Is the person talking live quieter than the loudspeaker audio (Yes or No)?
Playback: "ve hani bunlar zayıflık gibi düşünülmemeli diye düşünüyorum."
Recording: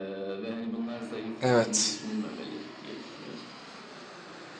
No